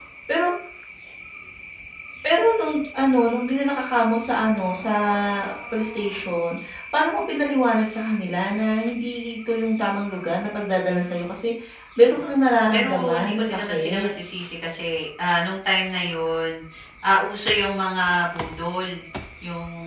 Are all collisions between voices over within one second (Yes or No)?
No